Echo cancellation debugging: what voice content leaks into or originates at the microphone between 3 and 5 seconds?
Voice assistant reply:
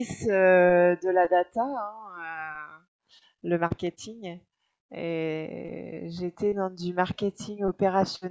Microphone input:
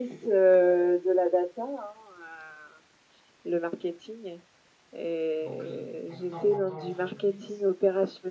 echo only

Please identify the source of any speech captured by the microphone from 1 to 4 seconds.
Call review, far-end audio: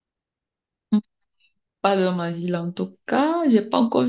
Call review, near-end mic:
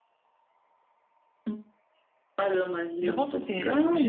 both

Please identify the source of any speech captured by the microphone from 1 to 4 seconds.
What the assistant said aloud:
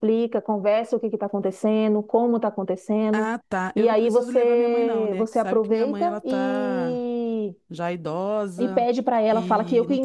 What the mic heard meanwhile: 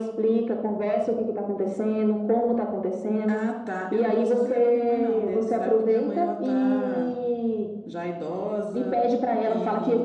echo only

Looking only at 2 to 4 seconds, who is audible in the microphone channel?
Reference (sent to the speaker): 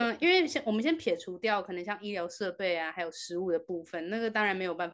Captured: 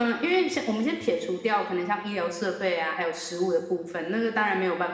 echo only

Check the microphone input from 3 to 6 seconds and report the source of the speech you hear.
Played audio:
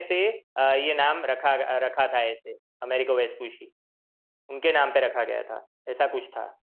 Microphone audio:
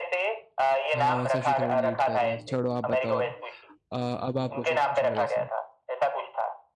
both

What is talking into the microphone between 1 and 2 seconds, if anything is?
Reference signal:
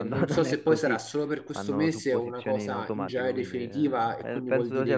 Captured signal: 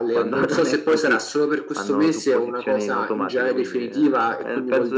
echo only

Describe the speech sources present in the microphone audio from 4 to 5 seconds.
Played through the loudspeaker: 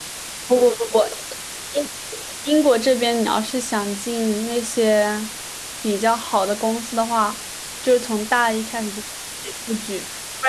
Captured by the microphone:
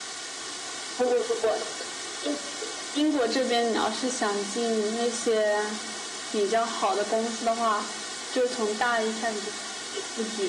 echo only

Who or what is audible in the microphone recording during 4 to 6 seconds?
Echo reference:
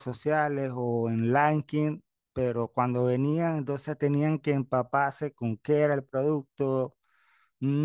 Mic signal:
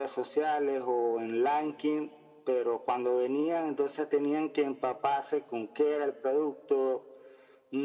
echo only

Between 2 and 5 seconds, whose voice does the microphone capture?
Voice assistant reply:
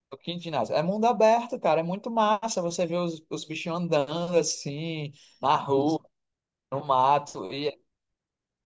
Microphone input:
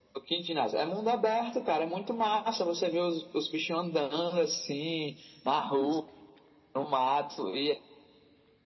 echo only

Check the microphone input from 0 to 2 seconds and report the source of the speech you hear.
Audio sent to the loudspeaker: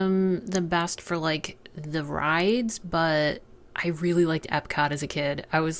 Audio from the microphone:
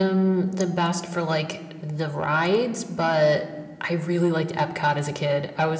echo only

